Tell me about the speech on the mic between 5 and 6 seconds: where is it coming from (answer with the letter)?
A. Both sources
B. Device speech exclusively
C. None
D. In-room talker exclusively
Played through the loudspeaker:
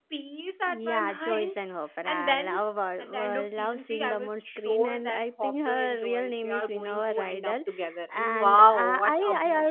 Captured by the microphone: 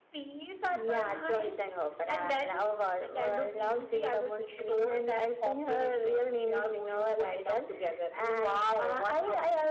B